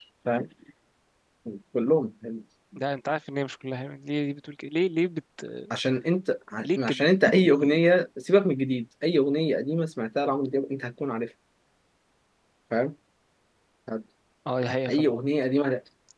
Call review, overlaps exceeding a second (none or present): none